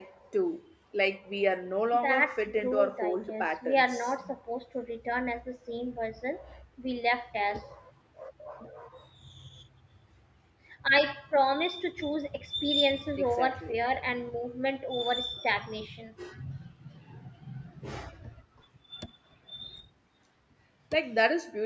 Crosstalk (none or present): present